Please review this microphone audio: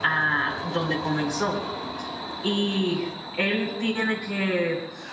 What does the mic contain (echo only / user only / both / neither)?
user only